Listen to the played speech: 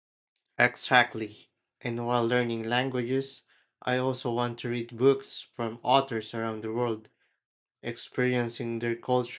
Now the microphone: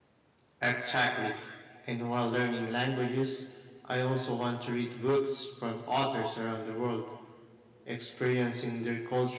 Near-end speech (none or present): none